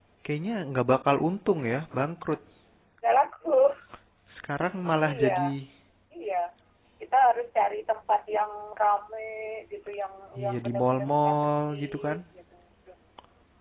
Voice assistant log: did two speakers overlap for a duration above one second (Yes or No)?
Yes